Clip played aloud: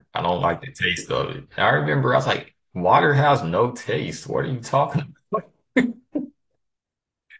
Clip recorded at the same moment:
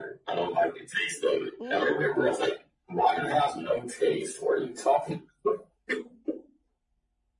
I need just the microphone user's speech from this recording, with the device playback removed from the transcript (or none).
Mm-hmm.